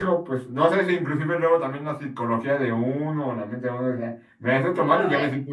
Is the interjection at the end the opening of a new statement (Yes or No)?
No